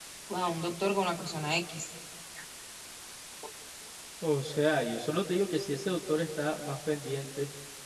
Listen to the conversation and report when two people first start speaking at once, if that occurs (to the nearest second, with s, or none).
none